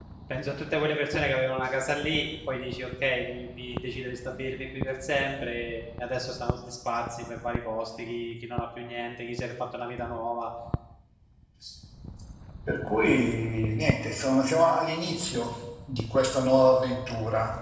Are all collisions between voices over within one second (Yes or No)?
Yes